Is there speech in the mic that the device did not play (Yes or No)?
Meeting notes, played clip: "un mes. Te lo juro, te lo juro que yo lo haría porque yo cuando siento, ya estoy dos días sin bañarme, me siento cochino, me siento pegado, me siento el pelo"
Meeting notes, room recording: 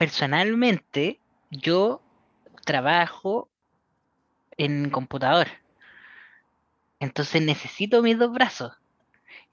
Yes